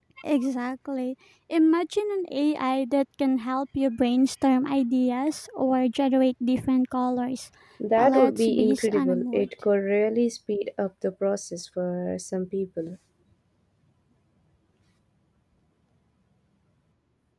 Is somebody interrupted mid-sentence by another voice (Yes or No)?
Yes